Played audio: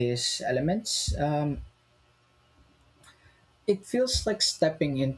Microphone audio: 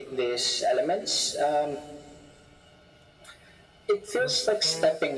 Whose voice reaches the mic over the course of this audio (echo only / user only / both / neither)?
both